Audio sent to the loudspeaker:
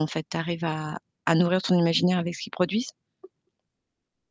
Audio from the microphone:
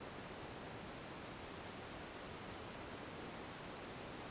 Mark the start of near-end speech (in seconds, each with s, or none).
none